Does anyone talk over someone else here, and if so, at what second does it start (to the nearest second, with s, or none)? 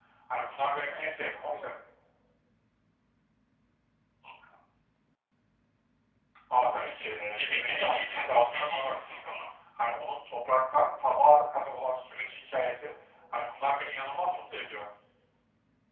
7 s